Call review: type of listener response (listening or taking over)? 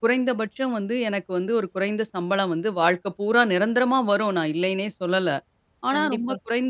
listening